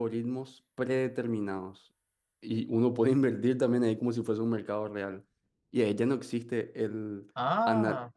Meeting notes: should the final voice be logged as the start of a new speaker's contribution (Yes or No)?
No